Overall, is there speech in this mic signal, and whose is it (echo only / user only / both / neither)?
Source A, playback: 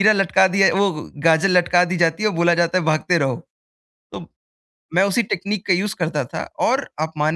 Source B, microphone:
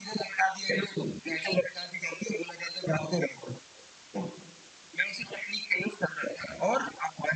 echo only